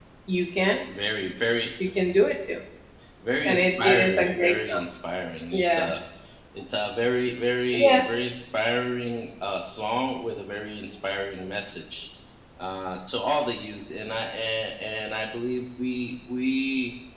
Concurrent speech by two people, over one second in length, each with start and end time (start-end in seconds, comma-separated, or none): 3.5-4.8